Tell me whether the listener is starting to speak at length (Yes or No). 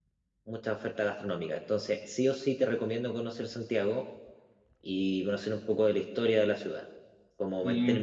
No